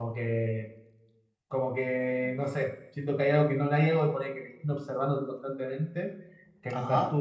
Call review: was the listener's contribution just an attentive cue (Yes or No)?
Yes